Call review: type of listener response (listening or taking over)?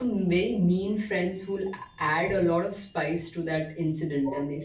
listening